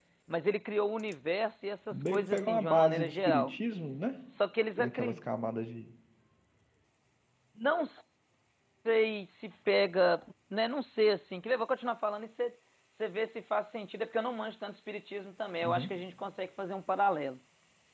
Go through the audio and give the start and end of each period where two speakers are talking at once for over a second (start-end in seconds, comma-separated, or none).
1.9-3.5